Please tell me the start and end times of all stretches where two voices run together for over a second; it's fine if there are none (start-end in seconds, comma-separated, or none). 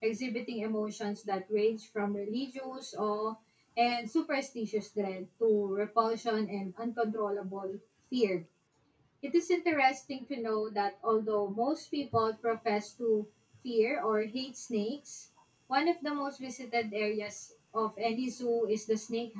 none